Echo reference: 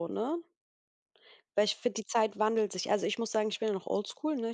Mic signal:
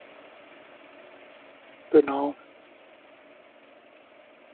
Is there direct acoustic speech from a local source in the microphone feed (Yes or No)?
Yes